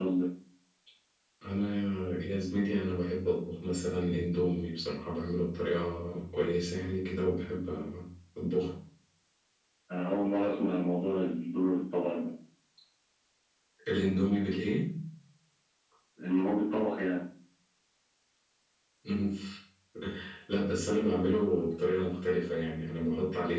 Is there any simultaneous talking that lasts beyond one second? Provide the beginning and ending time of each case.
none

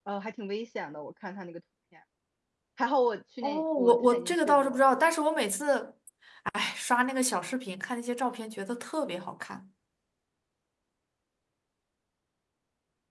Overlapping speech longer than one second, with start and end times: 3.4-4.8

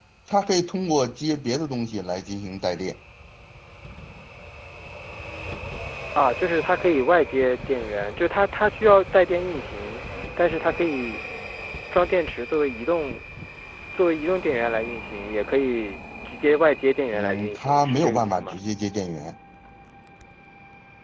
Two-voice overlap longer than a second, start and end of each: 17.1-18.5

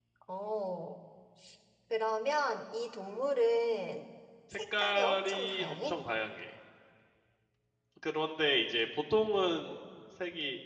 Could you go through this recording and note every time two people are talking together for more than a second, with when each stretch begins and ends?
4.5-6.0

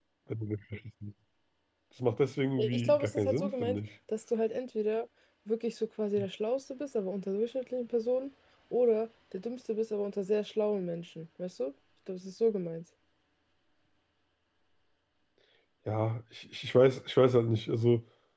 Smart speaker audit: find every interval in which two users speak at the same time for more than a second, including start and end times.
2.6-3.8

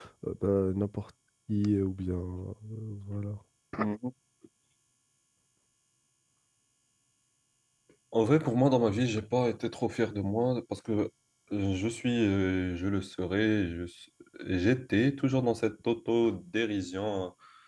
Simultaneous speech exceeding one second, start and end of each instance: none

